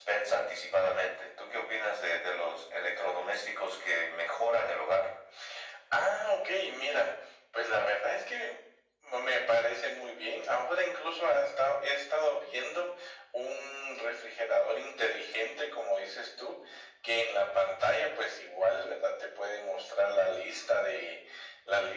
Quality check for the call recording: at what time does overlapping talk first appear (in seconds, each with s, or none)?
none